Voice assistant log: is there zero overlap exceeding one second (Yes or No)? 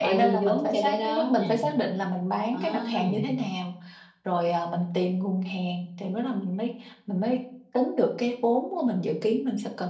No